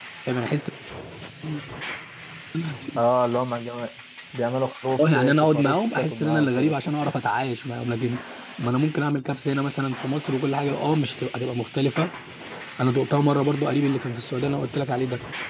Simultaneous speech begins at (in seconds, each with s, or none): 5.0 s